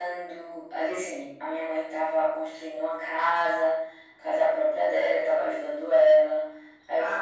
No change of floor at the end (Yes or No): No